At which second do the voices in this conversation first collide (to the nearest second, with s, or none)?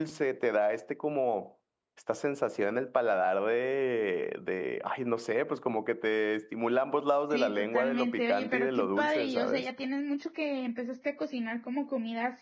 7 s